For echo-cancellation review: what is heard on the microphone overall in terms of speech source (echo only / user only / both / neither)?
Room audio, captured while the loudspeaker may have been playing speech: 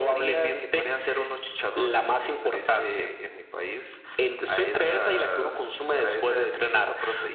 echo only